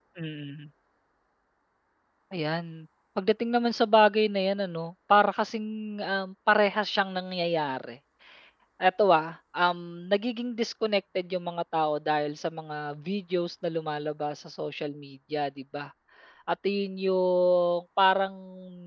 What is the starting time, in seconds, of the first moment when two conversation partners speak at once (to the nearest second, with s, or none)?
none